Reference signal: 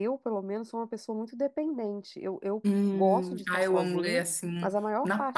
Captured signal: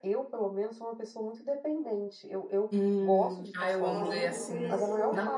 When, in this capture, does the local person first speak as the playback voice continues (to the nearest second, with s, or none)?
4 s